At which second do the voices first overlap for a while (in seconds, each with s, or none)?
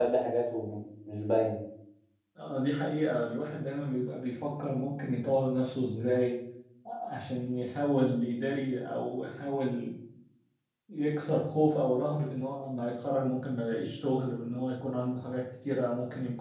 none